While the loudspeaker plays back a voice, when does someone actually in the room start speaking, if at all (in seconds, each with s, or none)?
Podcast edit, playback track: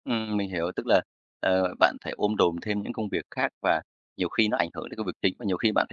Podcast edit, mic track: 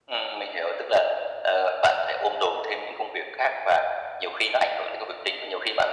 none